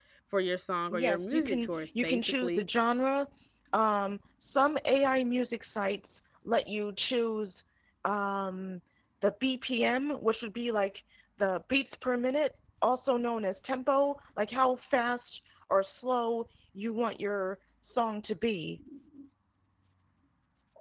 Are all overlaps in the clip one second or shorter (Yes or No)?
No